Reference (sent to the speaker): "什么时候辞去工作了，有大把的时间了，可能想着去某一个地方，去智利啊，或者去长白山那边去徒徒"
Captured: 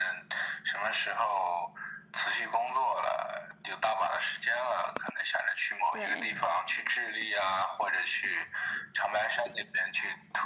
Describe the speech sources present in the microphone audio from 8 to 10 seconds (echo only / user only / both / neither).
echo only